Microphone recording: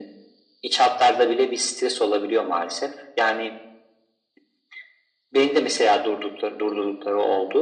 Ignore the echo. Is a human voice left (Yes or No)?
No